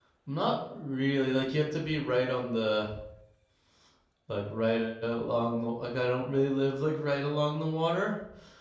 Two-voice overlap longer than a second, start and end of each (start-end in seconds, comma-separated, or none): none